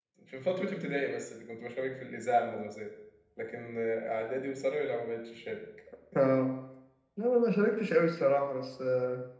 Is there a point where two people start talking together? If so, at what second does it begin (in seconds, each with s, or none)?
none